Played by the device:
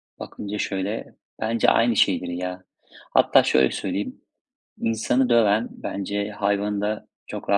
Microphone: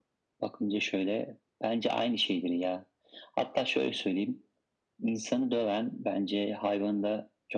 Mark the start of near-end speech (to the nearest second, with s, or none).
none